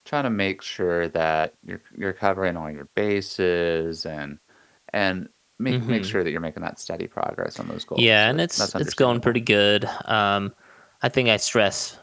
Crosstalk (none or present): present